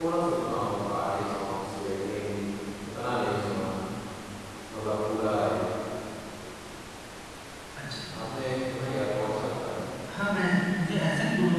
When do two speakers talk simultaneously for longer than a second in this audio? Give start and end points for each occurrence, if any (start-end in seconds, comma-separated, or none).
none